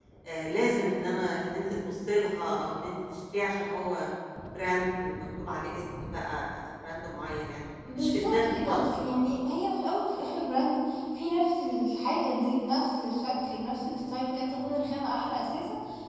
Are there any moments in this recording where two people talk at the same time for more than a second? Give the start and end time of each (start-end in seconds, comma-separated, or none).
8.0-9.3